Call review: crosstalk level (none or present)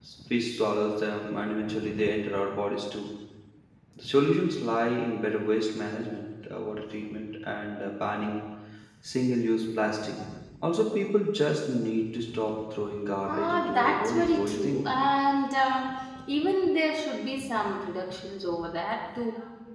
present